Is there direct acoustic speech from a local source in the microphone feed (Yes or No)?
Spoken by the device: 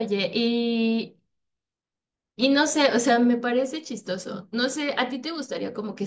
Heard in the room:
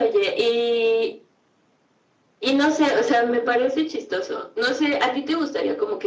Yes